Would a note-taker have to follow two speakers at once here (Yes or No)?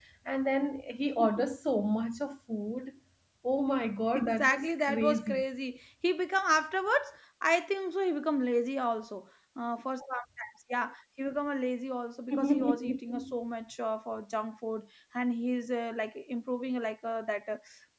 Yes